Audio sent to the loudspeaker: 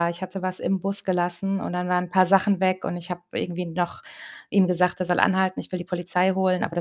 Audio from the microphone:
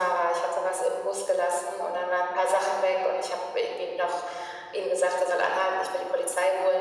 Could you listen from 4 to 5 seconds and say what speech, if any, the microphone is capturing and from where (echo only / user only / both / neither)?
echo only